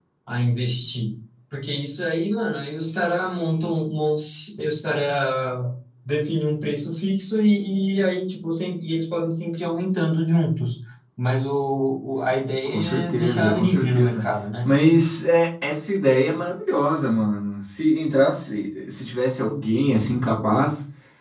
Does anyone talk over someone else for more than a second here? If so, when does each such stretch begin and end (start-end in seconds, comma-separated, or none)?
12.7-14.2